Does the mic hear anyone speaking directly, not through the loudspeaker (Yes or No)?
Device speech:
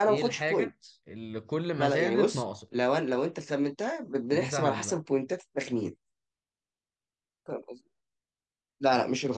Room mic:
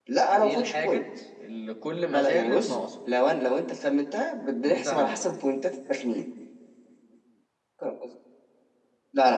No